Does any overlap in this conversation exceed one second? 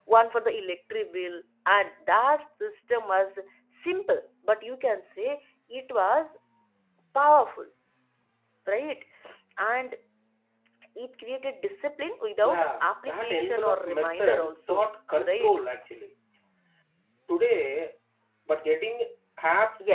Yes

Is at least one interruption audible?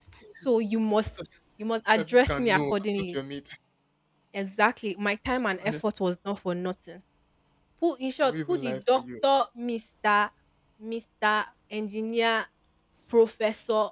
Yes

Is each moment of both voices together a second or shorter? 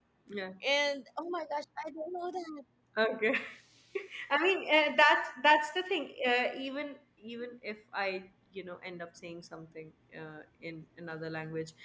Yes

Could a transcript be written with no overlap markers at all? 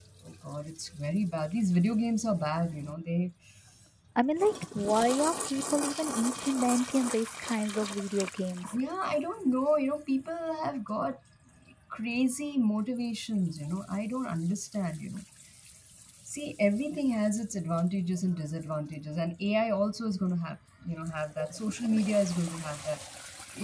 Yes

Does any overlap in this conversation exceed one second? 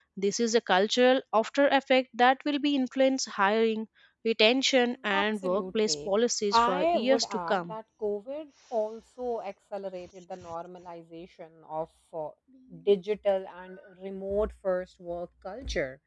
Yes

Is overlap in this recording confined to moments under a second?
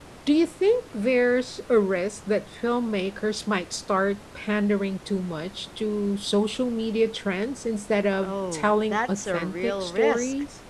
No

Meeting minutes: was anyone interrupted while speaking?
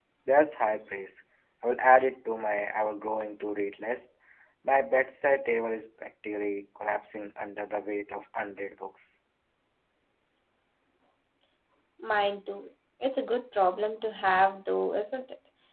No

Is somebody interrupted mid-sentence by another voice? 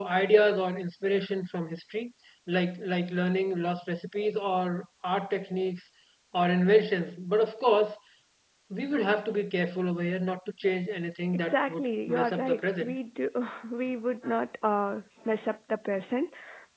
Yes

